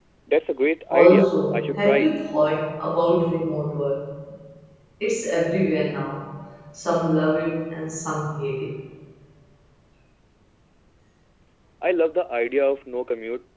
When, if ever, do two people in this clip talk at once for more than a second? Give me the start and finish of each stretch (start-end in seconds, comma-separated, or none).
0.9-2.1